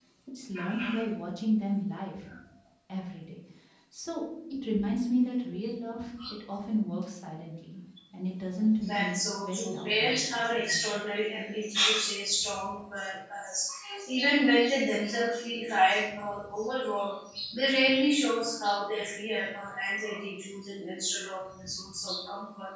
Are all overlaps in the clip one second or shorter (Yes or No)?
No